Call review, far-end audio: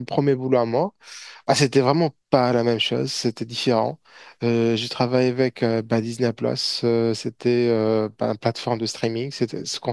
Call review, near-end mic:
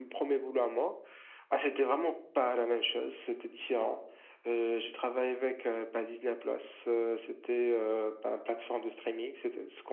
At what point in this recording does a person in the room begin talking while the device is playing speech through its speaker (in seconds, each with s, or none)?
none